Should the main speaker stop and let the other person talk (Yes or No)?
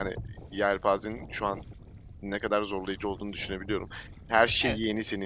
No